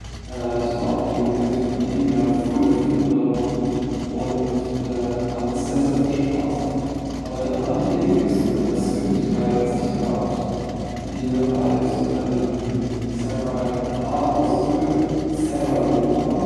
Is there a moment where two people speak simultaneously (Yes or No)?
No